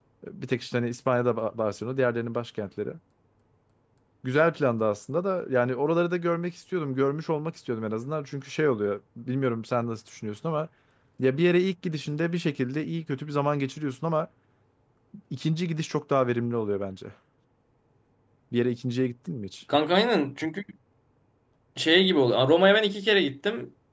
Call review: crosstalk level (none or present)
none